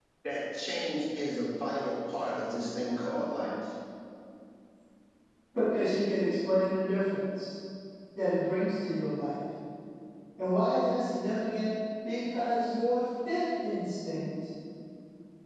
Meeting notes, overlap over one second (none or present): none